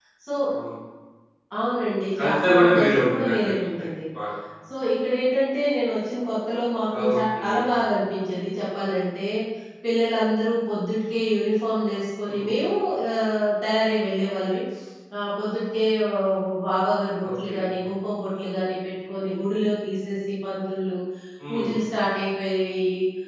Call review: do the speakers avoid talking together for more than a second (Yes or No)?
No